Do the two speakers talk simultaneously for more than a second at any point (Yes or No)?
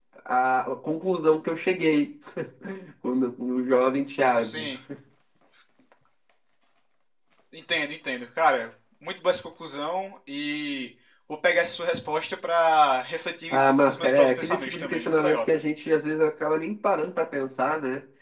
Yes